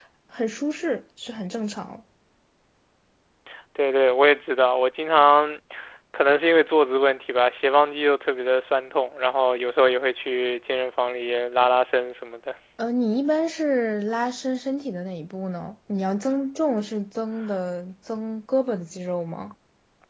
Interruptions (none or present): none